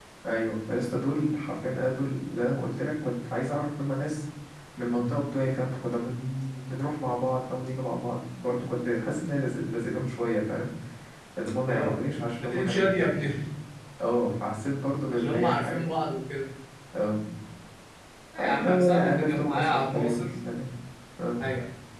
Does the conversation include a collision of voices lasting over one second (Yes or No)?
Yes